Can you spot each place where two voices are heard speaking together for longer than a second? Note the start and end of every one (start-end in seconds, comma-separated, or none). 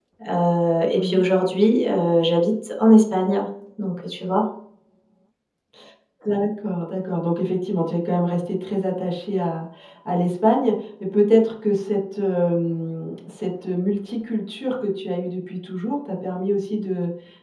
none